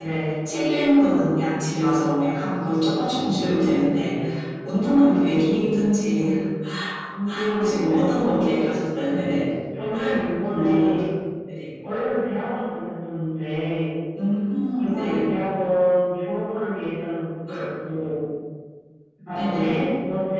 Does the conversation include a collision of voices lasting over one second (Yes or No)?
No